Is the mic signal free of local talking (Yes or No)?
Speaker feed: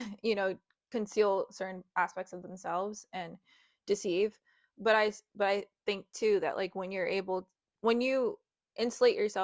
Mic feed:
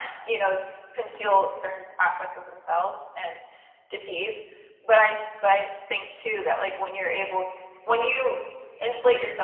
Yes